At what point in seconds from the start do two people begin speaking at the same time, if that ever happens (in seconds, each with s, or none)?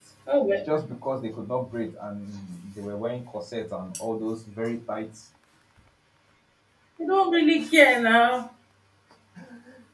none